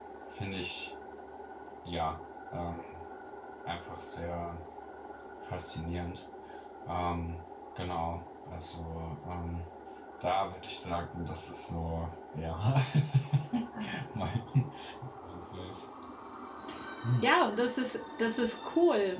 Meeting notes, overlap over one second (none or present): none